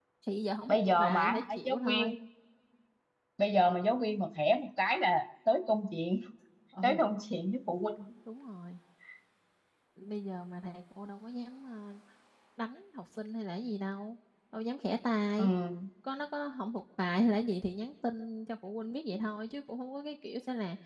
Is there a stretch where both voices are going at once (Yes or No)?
Yes